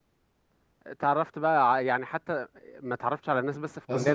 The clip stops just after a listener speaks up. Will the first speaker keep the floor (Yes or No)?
No